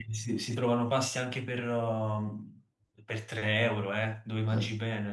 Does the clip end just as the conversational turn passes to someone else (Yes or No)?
Yes